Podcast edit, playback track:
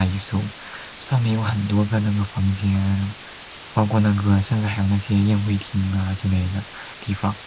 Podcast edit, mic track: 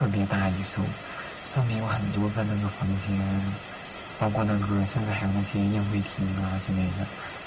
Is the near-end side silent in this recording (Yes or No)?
Yes